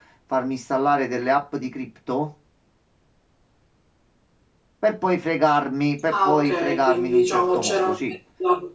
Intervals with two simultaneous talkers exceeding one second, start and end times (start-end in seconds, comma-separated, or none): 6.1-8.1